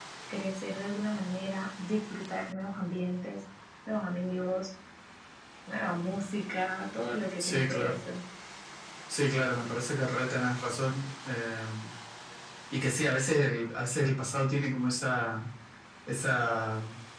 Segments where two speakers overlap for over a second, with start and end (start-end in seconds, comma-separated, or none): none